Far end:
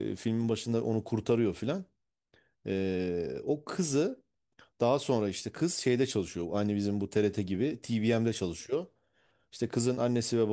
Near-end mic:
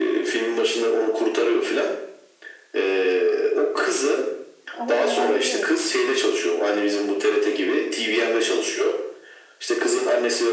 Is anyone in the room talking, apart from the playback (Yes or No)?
Yes